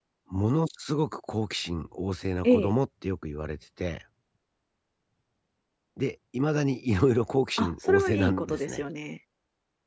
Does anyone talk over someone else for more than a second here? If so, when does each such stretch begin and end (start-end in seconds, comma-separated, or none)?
7.6-8.8